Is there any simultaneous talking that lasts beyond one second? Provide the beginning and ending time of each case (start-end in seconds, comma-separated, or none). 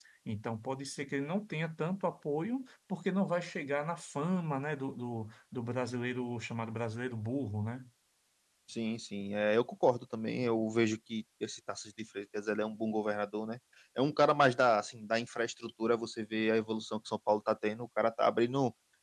none